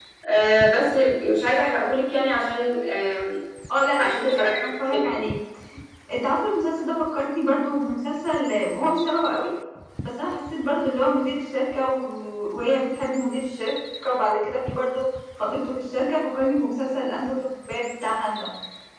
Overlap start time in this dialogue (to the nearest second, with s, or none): 4 s